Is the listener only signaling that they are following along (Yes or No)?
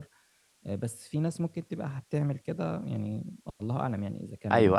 No